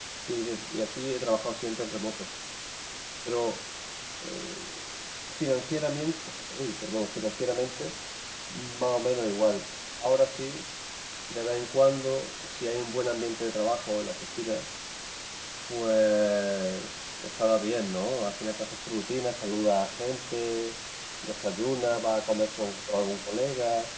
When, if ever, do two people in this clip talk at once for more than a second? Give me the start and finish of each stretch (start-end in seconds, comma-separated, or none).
none